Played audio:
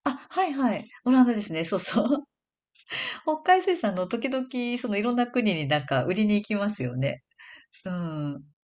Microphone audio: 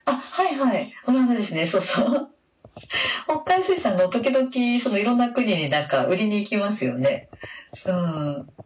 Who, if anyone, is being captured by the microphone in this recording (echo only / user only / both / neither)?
echo only